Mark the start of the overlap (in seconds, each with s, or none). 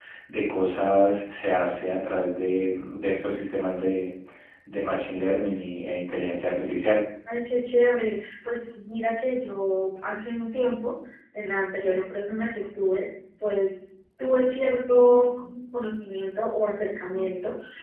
none